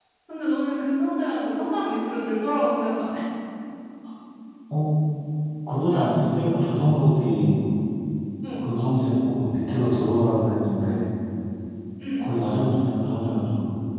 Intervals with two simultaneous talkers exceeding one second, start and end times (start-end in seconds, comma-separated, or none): none